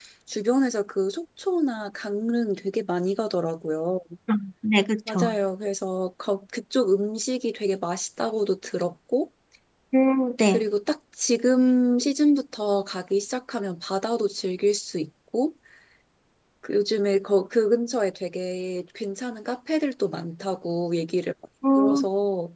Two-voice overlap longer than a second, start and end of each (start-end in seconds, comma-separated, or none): none